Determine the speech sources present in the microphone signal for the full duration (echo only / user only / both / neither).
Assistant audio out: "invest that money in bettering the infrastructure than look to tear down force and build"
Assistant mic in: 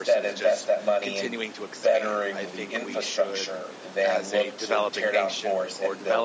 both